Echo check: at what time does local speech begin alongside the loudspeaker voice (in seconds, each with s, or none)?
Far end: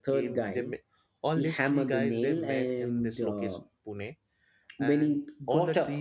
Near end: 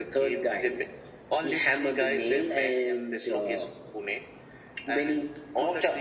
none